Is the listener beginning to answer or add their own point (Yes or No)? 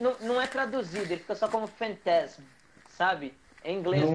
Yes